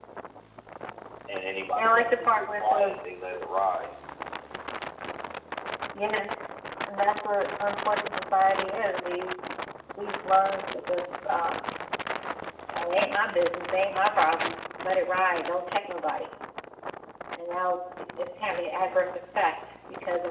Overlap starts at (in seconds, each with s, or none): 1.8 s